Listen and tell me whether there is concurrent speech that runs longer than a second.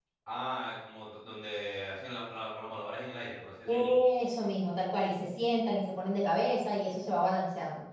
No

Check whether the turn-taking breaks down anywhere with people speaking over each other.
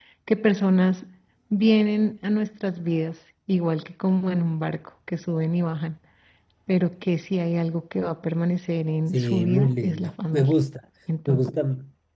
Yes, from 9.1 s

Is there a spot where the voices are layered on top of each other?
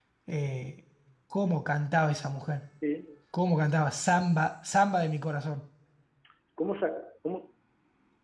No

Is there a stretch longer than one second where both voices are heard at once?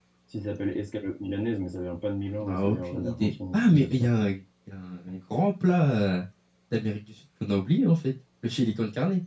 Yes, from 2.4 s

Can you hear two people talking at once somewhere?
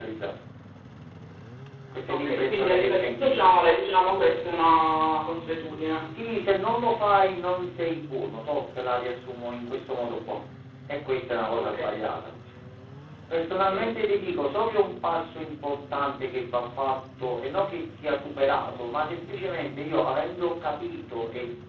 Yes, from 2.1 s

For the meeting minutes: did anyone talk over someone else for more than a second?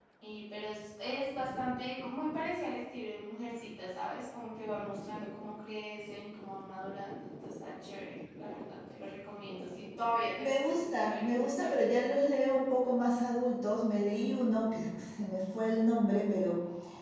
Yes, from 10.4 s

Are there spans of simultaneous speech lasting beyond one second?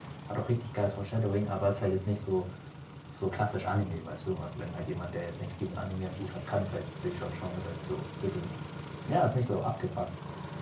No

